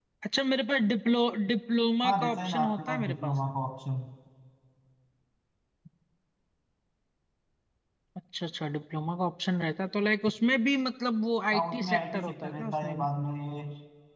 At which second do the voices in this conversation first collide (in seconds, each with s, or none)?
2.0 s